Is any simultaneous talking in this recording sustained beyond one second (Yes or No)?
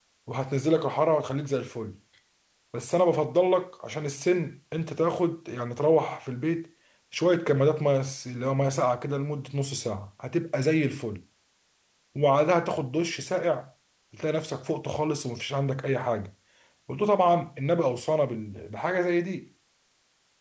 No